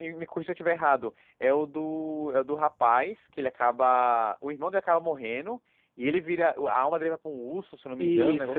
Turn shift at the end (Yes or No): Yes